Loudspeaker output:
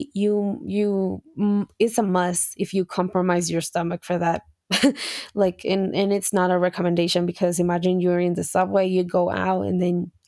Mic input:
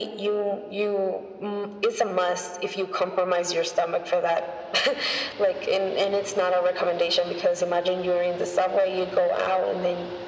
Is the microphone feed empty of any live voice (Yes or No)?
Yes